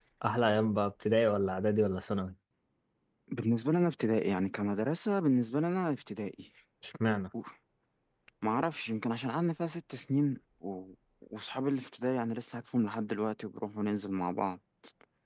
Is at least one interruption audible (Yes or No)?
No